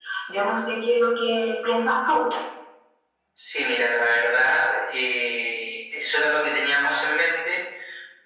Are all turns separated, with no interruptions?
Yes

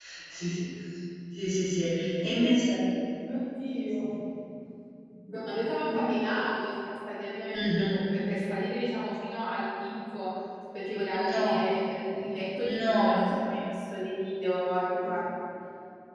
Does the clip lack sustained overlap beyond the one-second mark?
Yes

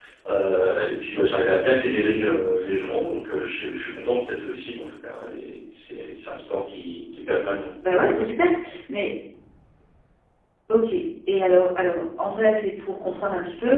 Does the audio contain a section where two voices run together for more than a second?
No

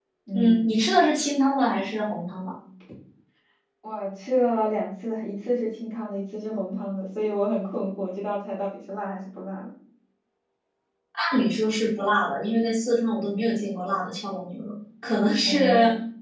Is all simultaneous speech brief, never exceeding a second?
Yes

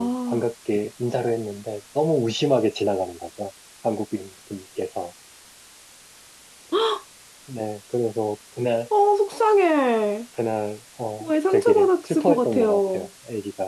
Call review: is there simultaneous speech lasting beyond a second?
Yes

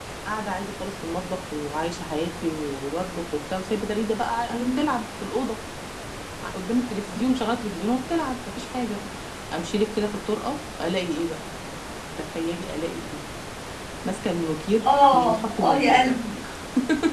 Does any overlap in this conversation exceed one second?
Yes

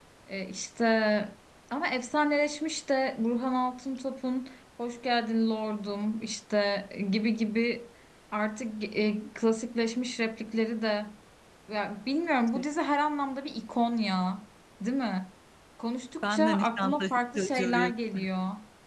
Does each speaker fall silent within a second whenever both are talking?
No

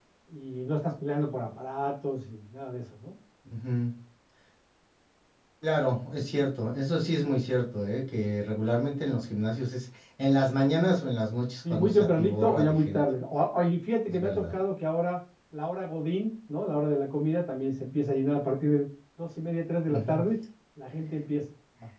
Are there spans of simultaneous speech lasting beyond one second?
Yes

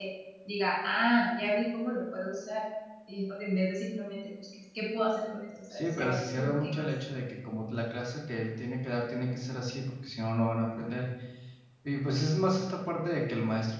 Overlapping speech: Yes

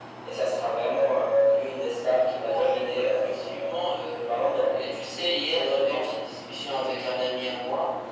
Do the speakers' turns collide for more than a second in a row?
Yes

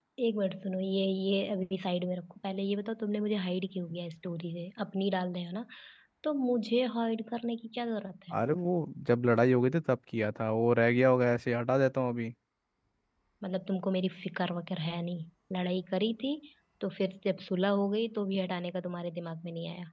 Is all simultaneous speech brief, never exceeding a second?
Yes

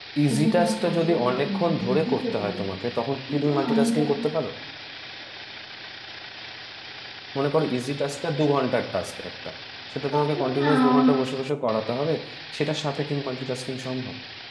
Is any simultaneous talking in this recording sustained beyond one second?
Yes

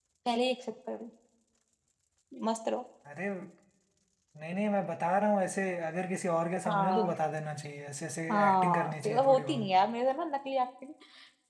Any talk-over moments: Yes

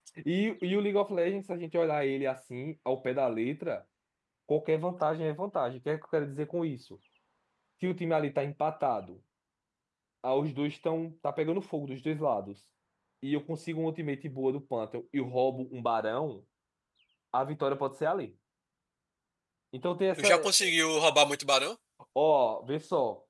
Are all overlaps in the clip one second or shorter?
Yes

